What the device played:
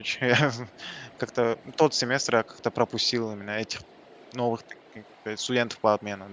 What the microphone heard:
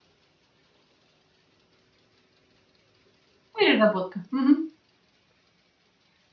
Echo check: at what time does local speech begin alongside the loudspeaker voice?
4 s

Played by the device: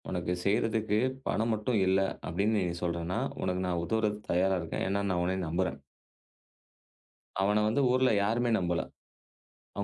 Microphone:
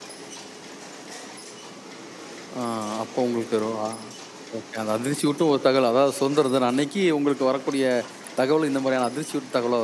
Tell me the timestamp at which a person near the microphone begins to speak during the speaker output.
3 s

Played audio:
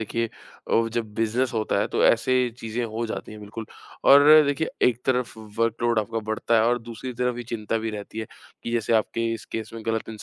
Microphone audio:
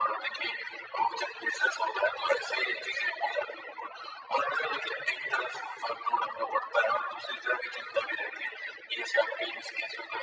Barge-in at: none

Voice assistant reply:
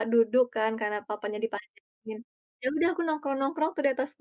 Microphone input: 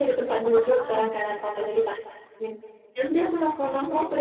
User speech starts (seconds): 0 s

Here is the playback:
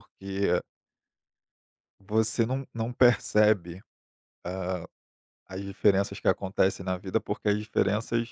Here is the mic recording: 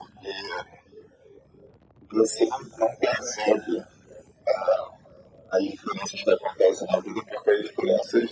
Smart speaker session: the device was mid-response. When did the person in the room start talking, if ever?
none

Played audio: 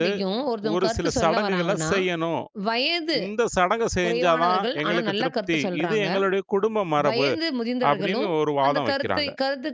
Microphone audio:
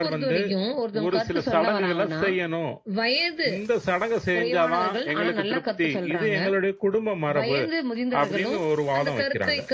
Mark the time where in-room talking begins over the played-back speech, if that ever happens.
none

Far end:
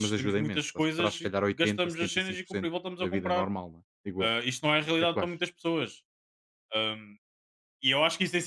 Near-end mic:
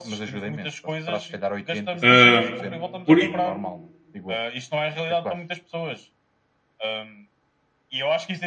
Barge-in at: 2 s

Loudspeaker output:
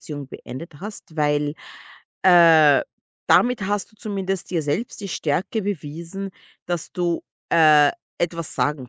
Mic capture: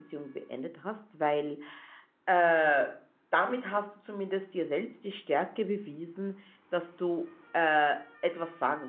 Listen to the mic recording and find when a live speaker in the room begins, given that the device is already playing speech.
none

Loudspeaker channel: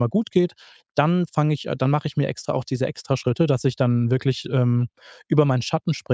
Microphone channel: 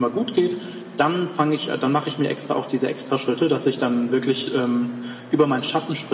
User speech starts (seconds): none

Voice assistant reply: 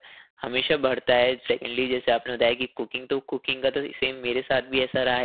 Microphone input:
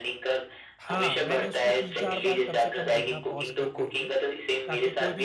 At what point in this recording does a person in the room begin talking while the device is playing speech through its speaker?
1 s

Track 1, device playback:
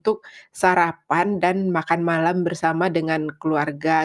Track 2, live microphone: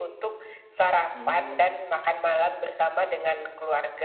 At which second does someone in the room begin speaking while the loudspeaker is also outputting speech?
1 s

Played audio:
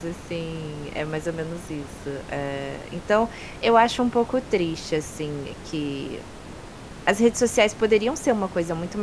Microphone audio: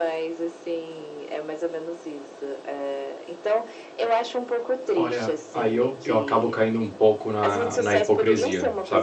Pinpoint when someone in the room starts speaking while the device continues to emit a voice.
5 s

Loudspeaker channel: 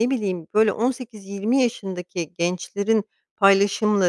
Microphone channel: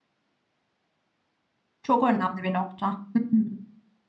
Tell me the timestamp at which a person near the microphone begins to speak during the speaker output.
2 s

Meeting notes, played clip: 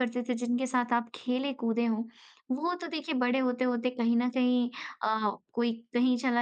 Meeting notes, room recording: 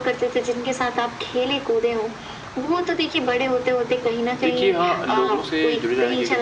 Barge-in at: 4 s

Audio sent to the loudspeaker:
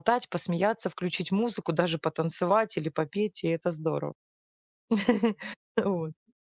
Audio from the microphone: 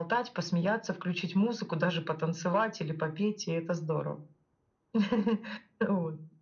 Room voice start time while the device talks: none

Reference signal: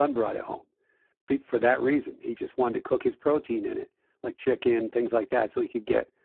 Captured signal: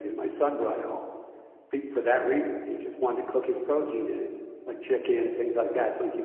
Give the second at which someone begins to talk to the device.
none

